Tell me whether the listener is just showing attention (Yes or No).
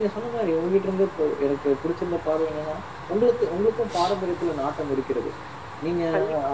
Yes